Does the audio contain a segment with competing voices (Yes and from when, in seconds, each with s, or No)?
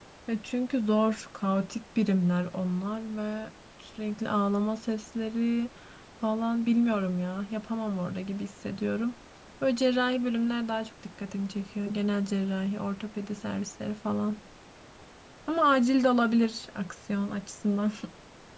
No